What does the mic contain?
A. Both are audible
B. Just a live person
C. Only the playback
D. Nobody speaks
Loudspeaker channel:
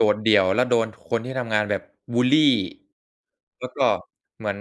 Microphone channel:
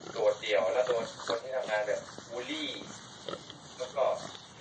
C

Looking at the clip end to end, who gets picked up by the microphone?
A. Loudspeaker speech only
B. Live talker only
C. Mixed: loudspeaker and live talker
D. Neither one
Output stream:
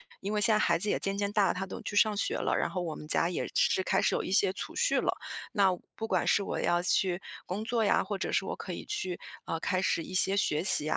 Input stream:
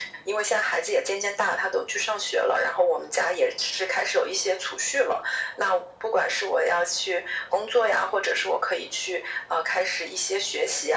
A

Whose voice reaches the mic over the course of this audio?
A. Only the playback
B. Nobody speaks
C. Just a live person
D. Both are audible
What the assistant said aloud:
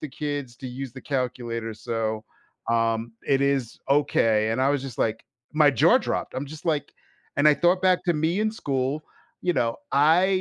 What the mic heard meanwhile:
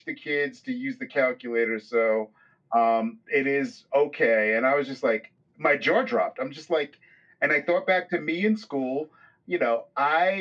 A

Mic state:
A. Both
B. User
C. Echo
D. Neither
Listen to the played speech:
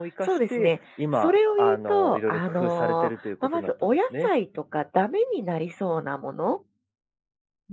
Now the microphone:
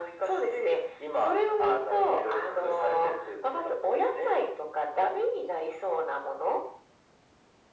C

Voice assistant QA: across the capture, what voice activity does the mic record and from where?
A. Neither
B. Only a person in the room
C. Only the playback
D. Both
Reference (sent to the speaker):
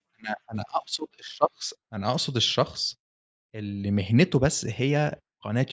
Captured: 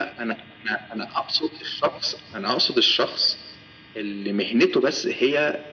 C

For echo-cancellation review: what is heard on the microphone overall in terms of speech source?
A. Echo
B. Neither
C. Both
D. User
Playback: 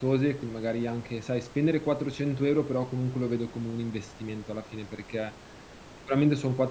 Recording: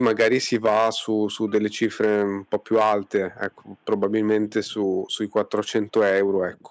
D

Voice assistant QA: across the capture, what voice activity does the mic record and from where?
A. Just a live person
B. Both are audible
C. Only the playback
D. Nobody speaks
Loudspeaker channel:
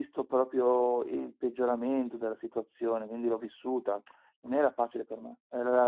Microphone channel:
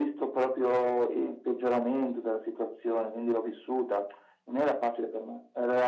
C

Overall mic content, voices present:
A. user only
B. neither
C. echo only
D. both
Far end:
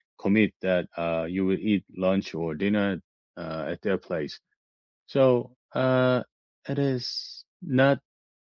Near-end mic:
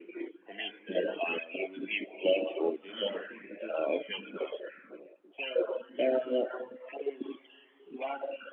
D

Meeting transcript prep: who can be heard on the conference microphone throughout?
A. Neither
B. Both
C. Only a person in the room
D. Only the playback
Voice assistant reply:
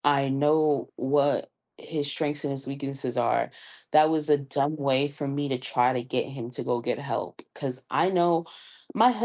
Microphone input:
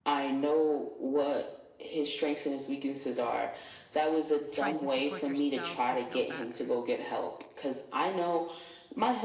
B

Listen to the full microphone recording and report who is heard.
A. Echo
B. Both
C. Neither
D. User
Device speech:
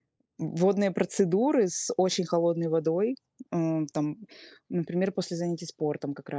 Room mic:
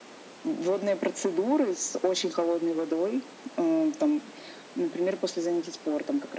A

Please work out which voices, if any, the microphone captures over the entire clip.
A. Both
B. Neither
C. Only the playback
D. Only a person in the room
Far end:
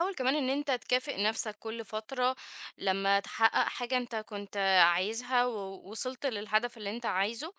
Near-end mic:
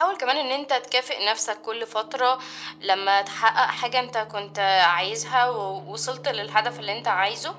C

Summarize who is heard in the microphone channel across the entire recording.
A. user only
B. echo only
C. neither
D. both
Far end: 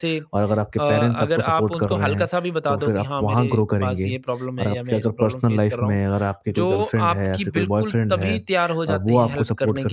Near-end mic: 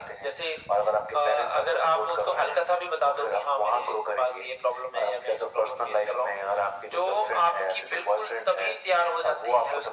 B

